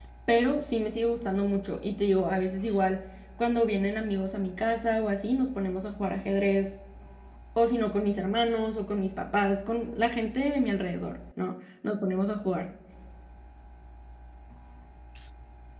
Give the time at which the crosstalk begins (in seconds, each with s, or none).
none